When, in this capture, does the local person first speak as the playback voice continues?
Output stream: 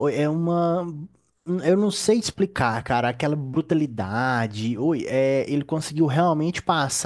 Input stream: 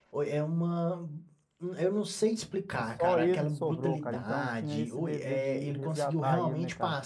3 s

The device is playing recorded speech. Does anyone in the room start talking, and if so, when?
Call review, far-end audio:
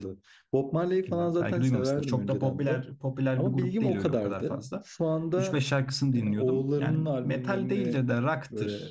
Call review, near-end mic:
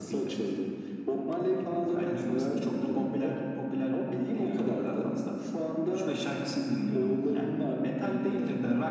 none

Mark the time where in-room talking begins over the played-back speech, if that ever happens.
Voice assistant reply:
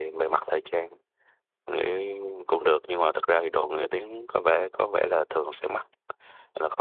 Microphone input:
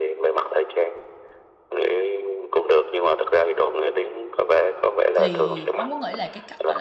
5 s

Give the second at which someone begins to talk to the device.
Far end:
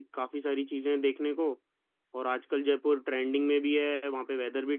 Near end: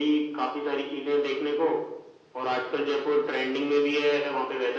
none

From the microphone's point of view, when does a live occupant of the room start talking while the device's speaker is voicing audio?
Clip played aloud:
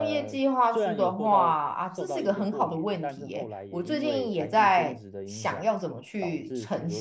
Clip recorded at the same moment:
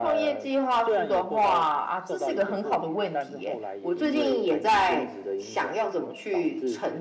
none

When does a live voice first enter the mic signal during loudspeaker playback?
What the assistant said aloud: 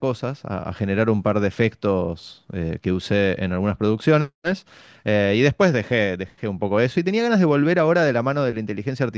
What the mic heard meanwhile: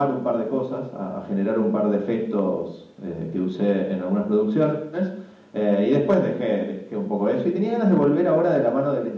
none

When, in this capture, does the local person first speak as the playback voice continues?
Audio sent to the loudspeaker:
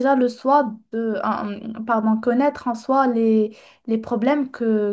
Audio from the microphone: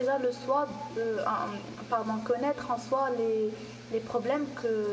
none

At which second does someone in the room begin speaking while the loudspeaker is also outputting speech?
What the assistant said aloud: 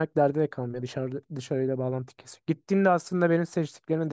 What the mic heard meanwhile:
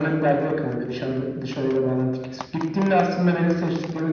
none

